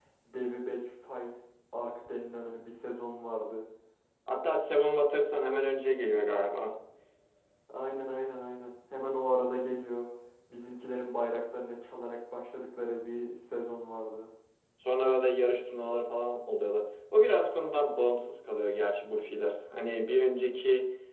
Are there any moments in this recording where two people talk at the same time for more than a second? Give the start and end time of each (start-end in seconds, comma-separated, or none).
none